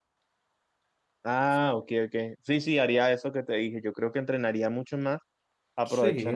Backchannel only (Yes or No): Yes